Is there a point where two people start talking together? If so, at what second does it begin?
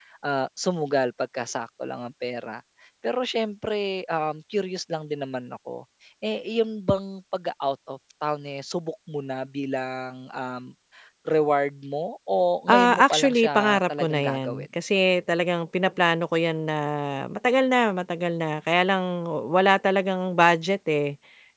12.7 s

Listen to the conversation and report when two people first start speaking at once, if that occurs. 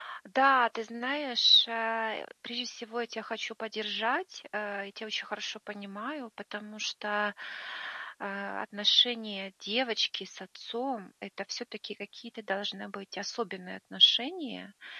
none

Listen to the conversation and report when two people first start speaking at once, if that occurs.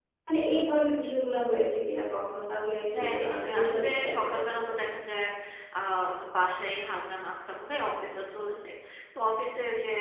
2.9 s

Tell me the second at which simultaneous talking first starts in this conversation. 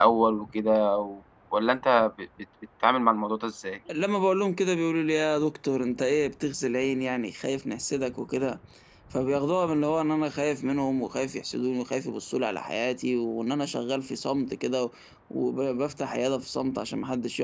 none

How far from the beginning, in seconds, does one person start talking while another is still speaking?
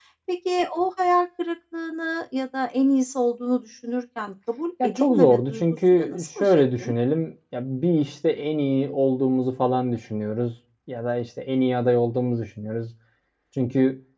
4.8 s

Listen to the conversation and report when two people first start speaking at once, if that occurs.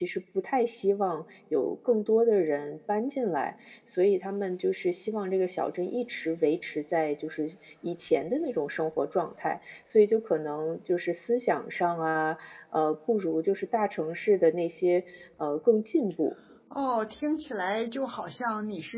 none

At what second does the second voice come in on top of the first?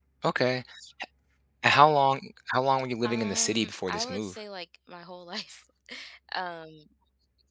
3.0 s

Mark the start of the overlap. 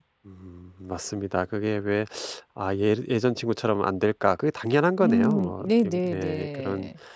5.0 s

